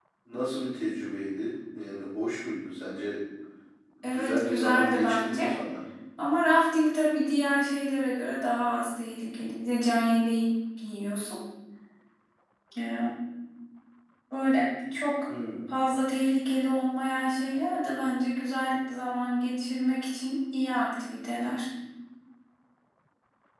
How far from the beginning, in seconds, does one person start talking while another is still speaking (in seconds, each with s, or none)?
4.0 s